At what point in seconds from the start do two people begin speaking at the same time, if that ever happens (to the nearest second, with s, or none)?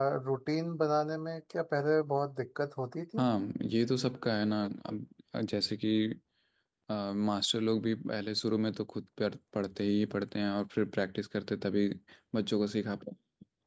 none